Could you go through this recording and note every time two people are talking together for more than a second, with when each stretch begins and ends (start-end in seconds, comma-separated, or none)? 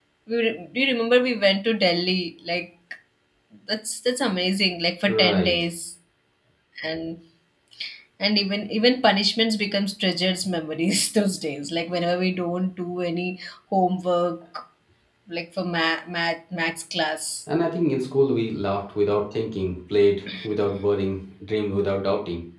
none